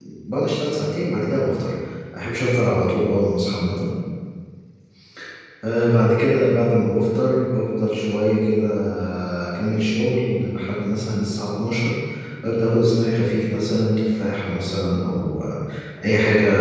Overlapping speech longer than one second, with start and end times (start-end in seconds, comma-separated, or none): none